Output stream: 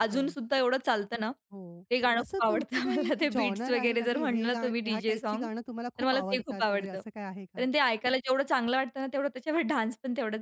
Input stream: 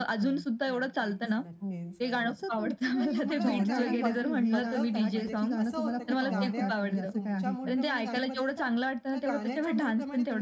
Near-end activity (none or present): present